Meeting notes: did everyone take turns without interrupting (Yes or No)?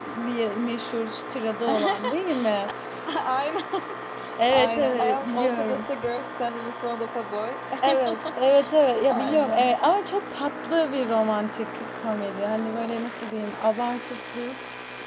No